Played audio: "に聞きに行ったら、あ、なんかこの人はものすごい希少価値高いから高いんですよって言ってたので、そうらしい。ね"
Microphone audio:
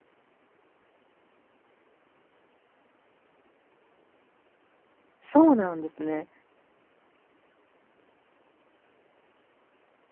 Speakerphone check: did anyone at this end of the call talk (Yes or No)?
Yes